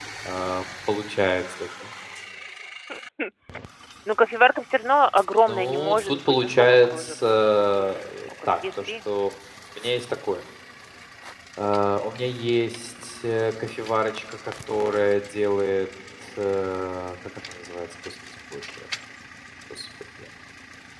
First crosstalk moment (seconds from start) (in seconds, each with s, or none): 5.5 s